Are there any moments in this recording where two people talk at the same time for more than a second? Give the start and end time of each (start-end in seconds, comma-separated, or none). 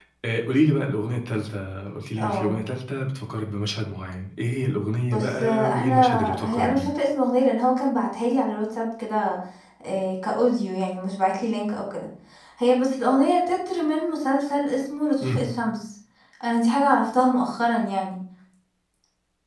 5.1-6.9